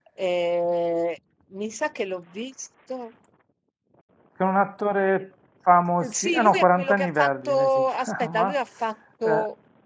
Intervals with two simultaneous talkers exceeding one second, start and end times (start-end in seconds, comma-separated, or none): 6.1-8.6